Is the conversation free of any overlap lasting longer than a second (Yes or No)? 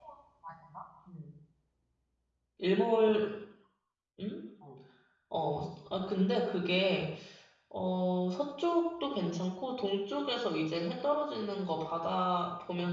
Yes